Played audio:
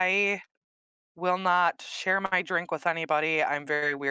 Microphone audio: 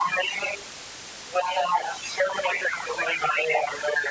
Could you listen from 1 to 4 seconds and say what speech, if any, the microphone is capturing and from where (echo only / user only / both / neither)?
echo only